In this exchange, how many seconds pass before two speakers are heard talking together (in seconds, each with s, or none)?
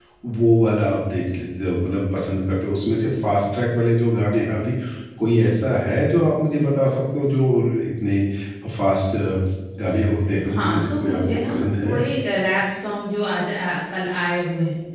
10.5 s